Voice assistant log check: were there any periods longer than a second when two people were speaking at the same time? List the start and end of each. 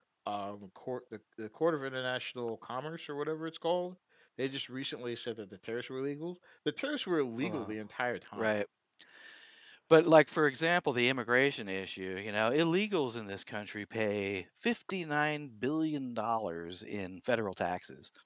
none

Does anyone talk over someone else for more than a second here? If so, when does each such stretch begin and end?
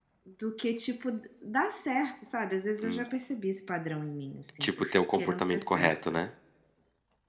4.6-6.2

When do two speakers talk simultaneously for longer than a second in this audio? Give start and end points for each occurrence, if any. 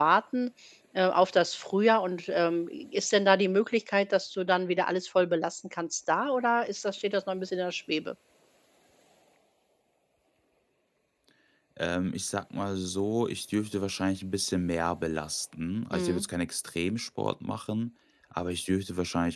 none

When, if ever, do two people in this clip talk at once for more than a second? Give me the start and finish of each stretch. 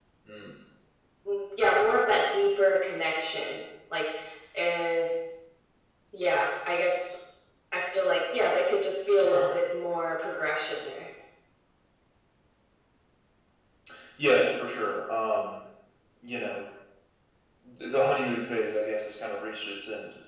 none

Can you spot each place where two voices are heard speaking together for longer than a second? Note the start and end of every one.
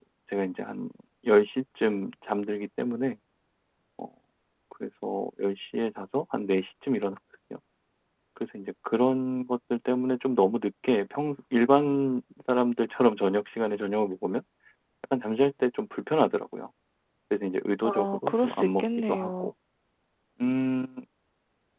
17.8-19.5

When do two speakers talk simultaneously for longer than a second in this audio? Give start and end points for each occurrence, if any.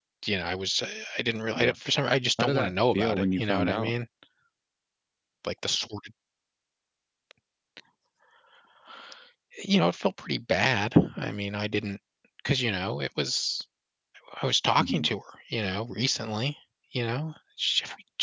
2.4-3.9

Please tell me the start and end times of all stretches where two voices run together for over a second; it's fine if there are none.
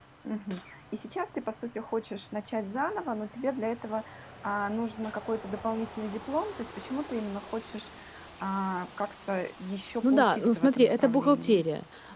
10.0-11.6

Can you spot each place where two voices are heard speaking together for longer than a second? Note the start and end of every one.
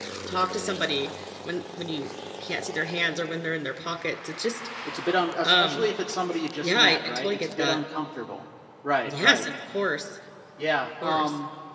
6.6-7.8

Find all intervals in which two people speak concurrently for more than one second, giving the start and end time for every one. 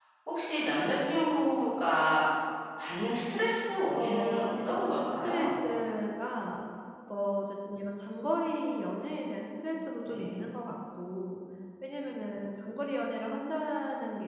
3.9-5.7

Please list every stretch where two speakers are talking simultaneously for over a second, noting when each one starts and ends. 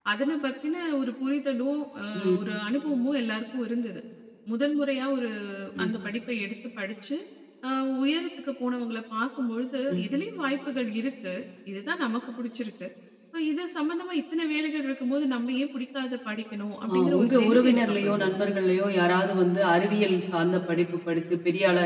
16.9-18.4

